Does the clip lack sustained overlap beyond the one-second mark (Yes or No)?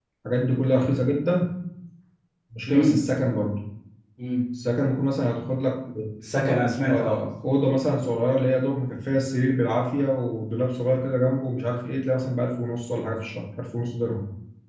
Yes